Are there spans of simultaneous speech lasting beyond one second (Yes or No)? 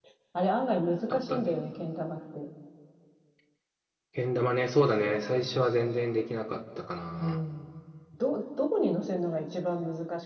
No